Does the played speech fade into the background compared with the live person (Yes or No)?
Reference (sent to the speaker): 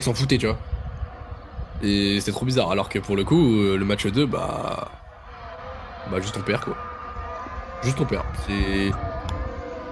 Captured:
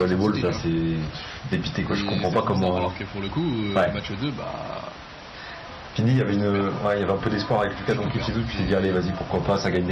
Yes